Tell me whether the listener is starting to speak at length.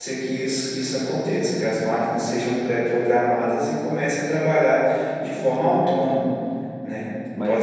No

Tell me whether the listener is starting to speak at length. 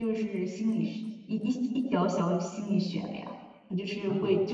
No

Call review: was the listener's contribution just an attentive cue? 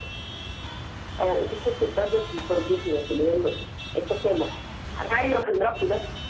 Yes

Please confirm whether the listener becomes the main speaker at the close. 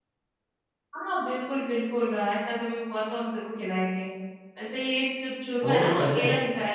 No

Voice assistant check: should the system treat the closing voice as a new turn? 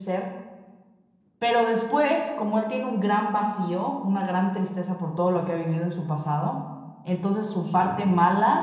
No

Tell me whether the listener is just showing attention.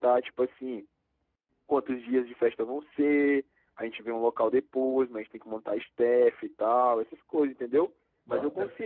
Yes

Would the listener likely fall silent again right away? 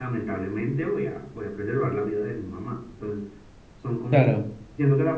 Yes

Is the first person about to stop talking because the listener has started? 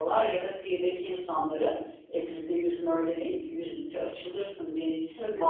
No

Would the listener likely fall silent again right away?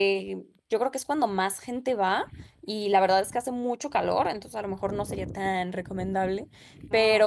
Yes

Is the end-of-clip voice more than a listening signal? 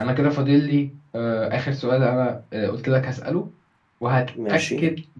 No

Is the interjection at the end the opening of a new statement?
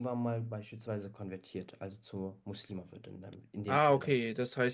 Yes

